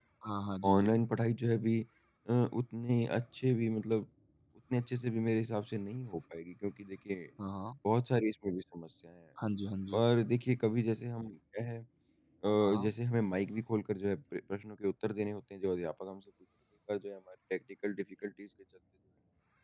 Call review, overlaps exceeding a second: none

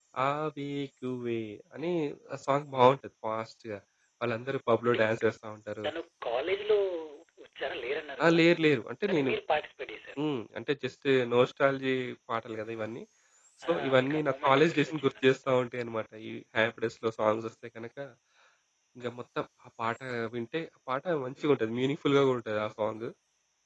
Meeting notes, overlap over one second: present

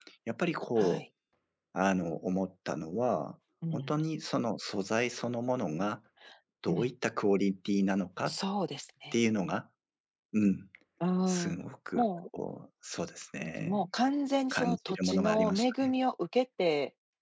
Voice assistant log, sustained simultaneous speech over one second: present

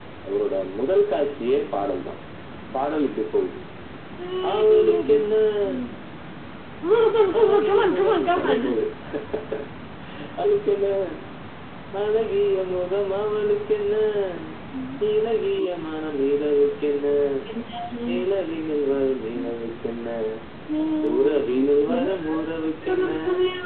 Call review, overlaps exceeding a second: present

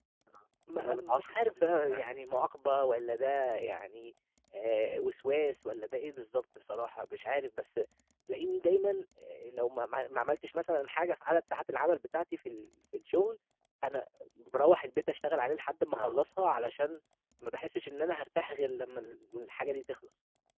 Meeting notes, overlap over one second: present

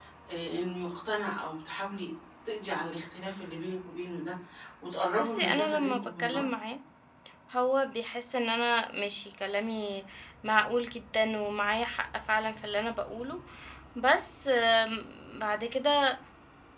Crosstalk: present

